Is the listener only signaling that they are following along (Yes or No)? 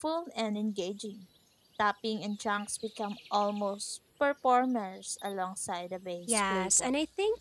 No